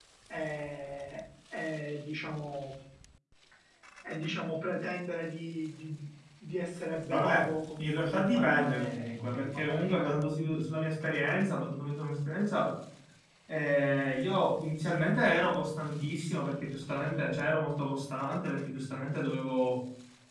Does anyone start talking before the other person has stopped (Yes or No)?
Yes